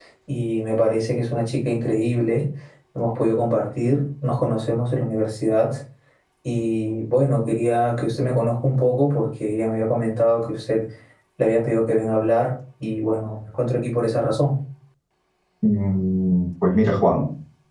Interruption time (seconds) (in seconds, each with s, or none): none